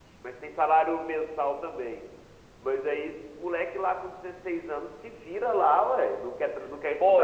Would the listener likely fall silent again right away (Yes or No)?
No